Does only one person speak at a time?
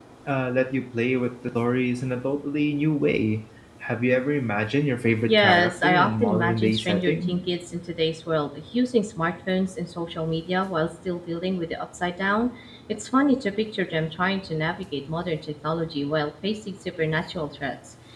No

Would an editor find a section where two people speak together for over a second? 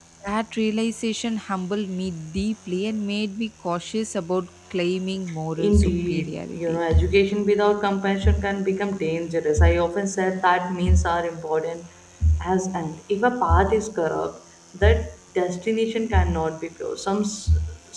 Yes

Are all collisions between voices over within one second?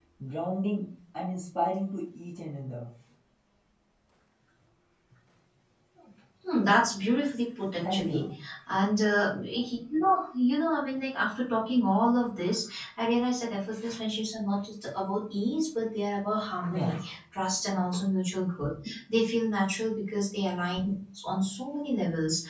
Yes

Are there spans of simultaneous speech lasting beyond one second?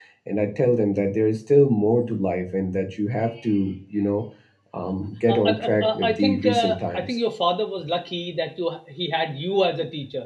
Yes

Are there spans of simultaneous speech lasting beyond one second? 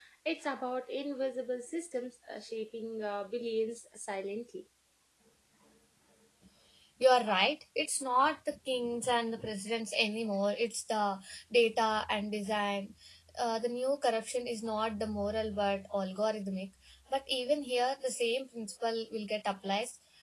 No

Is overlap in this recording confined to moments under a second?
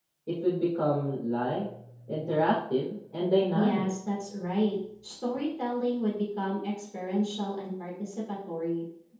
Yes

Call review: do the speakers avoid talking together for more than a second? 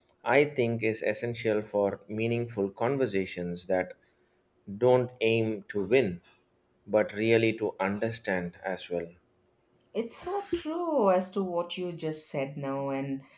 Yes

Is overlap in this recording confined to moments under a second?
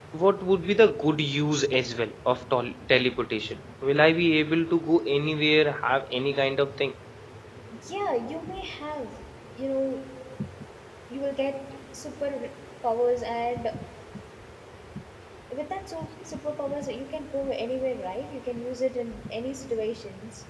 Yes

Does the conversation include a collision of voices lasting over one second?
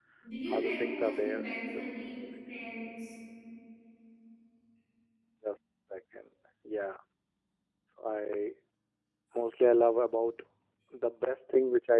Yes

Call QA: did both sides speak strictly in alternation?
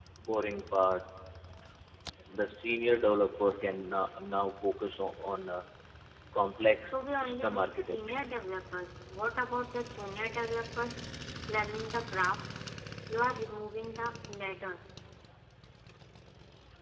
No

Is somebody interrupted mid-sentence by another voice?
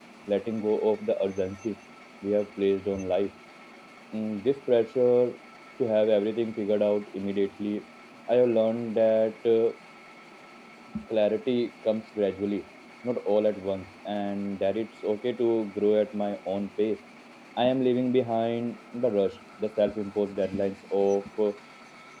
No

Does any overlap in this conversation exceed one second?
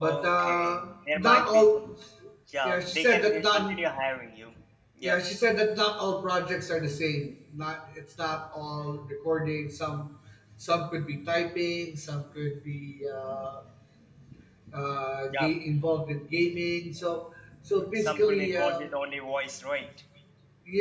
Yes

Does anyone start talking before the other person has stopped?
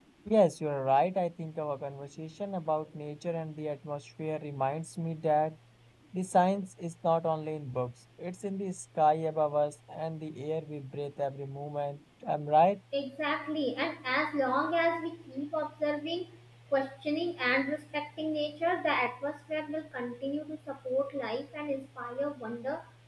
No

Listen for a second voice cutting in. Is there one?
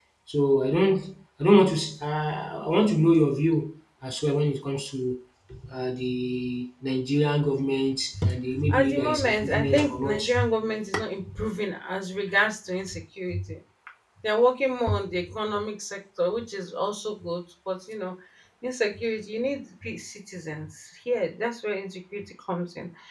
Yes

